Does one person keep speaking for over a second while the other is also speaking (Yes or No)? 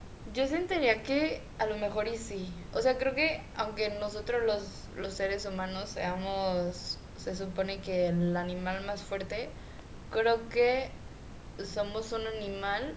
No